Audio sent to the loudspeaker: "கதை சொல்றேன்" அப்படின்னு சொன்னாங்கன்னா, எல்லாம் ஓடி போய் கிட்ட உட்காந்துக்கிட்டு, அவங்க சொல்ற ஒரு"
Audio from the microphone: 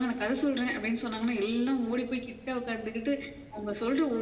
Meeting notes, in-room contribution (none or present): none